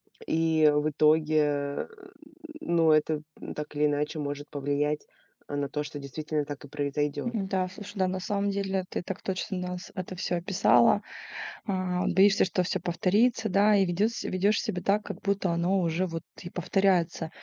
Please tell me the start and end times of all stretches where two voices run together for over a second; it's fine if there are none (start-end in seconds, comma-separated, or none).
none